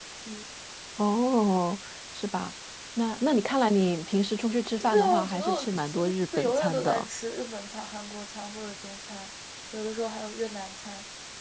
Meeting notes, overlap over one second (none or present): present